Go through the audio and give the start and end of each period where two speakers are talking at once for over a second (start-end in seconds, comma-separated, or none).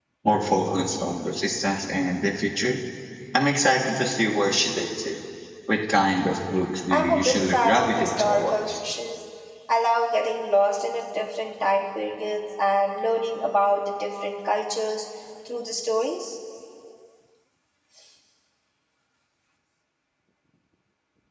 6.9-8.7